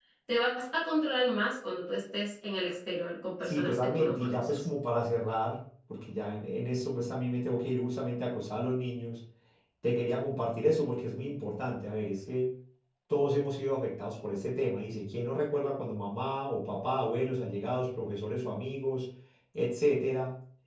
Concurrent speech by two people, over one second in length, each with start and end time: 3.4-4.6

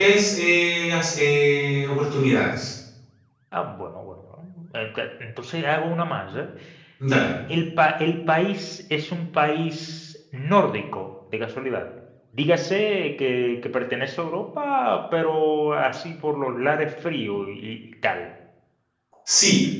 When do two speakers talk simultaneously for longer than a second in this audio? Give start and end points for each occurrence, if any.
none

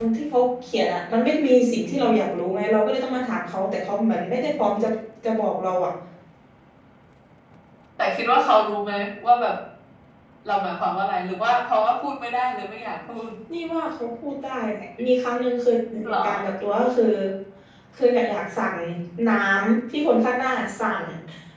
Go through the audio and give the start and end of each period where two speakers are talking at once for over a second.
none

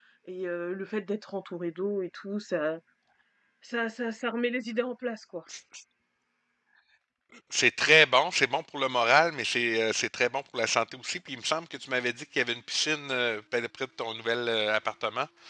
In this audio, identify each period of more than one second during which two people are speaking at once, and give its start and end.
none

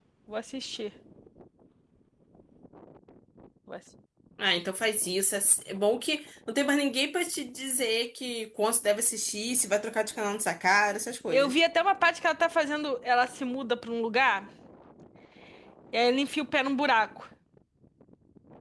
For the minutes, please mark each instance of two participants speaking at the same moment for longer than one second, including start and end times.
none

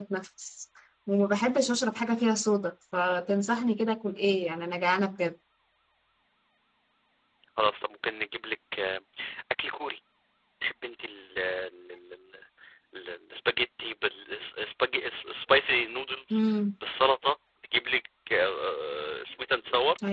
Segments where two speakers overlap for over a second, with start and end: none

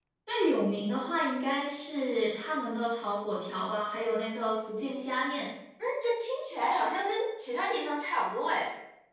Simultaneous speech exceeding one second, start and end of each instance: none

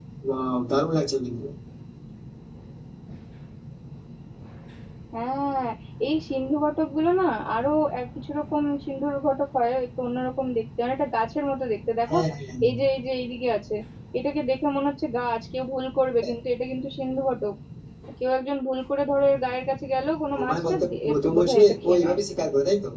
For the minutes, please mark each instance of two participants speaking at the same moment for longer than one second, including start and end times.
20.3-22.2

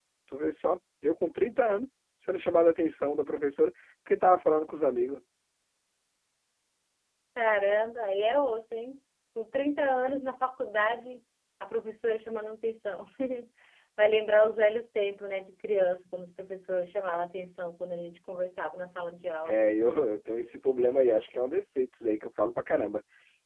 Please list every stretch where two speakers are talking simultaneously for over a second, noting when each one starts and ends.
none

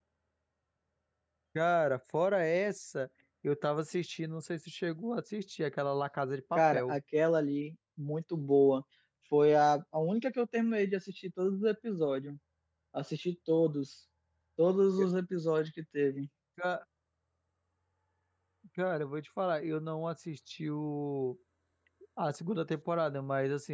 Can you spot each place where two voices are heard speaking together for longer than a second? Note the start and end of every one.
none

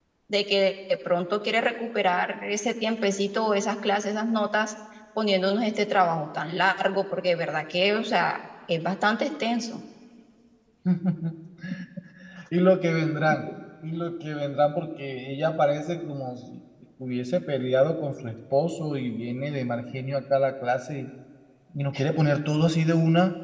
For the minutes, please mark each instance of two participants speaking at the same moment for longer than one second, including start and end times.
none

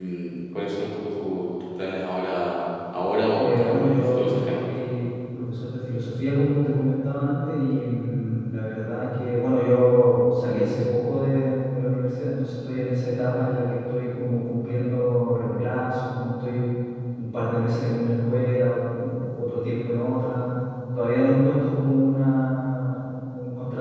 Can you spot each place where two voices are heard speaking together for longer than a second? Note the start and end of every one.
3.4-4.9

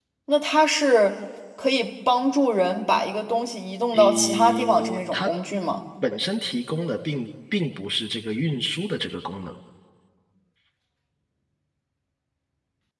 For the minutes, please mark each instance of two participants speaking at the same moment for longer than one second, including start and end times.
3.9-5.3

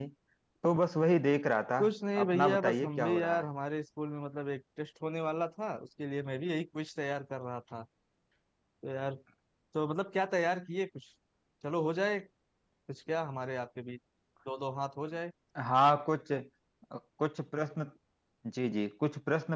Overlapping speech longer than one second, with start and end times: 2.3-3.5

